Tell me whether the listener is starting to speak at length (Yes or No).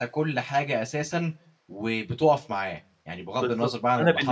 Yes